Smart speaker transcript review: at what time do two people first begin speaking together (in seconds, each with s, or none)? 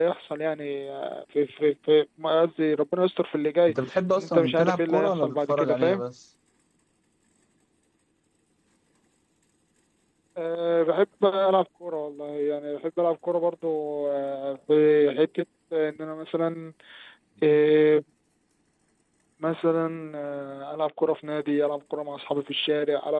4.2 s